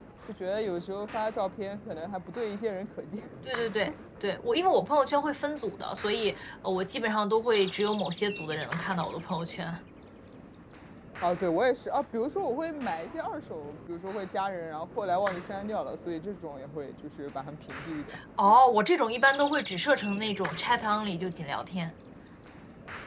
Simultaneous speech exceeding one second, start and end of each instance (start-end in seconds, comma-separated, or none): none